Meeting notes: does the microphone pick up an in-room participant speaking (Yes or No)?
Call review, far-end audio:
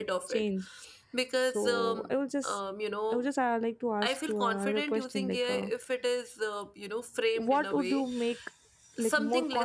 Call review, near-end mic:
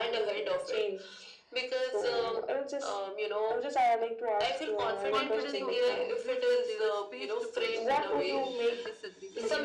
Yes